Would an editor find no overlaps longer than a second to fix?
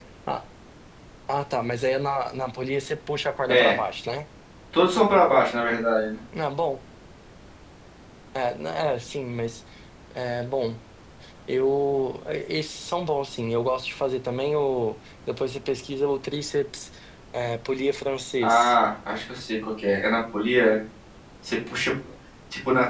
Yes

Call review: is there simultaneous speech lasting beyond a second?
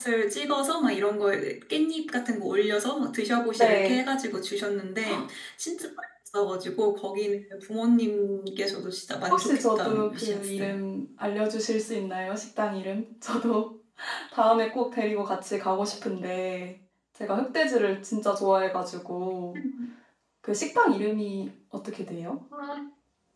Yes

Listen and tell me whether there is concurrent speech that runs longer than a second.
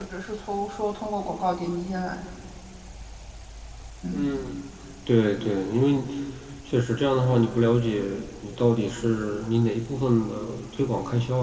No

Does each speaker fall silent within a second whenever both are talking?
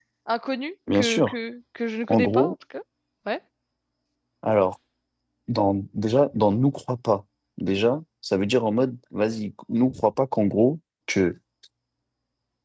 Yes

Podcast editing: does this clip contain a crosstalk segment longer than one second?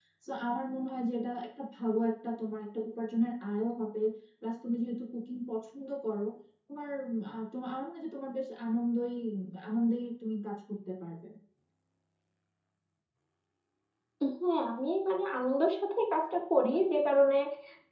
No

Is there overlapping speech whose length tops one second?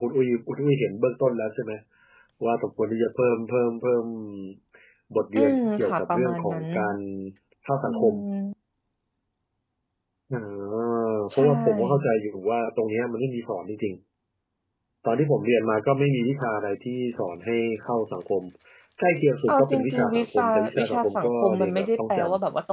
Yes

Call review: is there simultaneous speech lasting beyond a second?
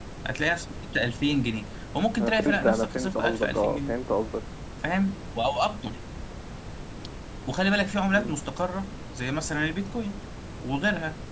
Yes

